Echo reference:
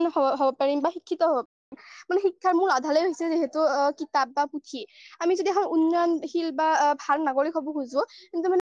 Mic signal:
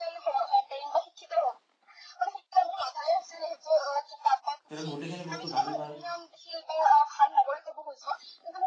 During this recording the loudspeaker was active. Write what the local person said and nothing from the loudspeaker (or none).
তেওঁলোক গোটেইখিনি বস্তু জানি পায়।